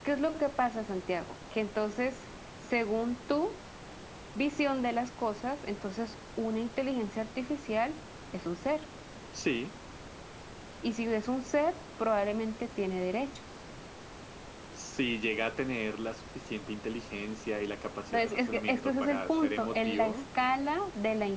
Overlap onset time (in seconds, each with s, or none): 18.1 s